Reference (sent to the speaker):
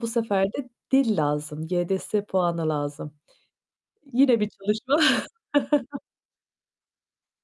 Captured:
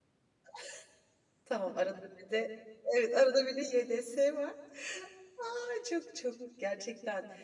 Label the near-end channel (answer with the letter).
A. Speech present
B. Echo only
A